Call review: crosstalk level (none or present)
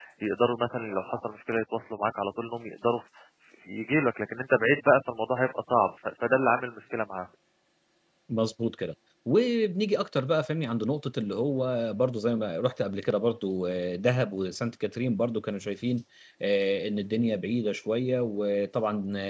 none